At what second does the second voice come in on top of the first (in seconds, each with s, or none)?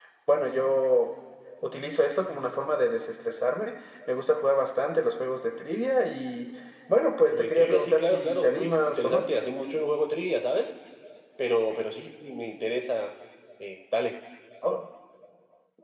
7.3 s